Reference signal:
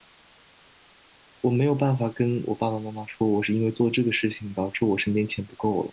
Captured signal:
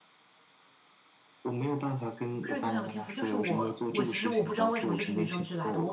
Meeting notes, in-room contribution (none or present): present